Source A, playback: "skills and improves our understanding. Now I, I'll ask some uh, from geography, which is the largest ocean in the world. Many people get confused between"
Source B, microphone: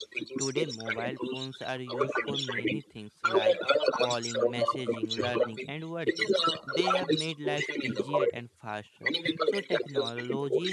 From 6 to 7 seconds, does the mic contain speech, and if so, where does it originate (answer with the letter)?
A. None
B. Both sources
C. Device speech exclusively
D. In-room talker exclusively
B